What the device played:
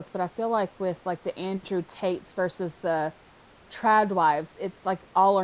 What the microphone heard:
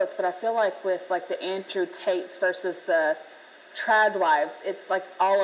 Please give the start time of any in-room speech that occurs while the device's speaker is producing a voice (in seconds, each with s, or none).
none